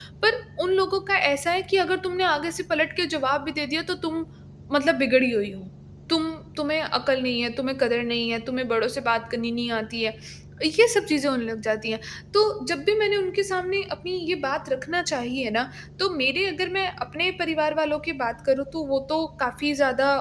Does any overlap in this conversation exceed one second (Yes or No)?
No